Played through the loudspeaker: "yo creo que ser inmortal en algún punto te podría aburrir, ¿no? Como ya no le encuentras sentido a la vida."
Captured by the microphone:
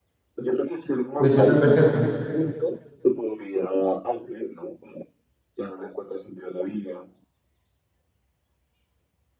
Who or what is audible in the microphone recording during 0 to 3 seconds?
both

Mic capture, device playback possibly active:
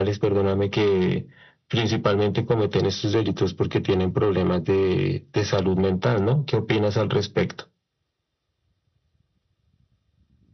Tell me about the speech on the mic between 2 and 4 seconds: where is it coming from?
echo only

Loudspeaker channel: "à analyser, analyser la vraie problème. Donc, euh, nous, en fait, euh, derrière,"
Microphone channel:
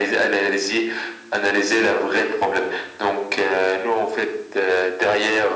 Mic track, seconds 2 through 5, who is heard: echo only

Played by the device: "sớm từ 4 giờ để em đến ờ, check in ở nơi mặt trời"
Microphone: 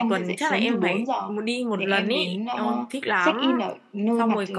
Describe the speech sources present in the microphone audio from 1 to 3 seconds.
both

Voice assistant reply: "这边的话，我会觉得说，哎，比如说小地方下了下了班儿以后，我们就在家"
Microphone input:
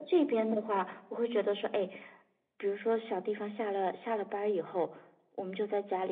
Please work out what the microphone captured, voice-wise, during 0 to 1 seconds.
echo only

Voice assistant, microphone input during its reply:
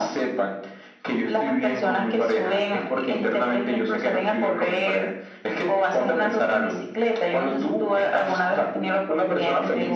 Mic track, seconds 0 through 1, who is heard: echo only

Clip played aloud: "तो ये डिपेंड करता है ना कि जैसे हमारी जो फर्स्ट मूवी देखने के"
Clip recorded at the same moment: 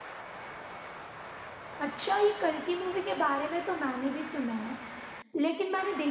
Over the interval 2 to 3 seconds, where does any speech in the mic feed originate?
user only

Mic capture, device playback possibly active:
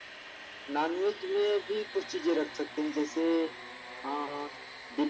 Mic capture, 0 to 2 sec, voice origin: echo only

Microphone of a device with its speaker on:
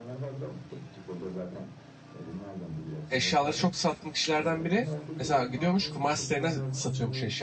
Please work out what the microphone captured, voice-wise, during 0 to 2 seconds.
echo only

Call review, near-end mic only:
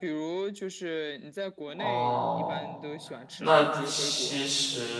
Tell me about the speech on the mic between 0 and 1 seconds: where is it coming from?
echo only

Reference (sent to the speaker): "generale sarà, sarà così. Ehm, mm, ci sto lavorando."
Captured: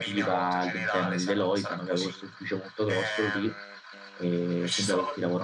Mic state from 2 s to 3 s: both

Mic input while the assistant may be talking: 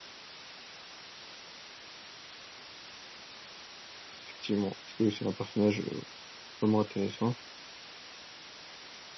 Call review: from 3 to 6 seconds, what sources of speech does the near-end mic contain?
user only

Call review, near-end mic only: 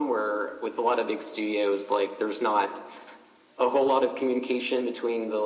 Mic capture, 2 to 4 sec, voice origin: echo only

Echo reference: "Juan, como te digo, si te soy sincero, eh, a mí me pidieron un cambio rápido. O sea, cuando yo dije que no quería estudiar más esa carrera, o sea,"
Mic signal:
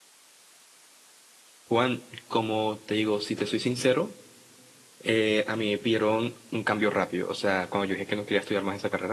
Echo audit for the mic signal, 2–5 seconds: echo only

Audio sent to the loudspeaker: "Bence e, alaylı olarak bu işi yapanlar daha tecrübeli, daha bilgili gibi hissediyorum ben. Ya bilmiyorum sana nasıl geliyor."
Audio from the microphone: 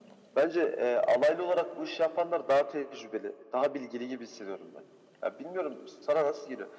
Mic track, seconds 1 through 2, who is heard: echo only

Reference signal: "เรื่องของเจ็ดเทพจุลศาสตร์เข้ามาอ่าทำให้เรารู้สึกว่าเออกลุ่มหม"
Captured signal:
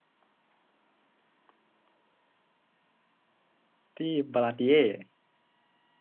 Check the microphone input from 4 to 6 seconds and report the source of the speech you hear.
user only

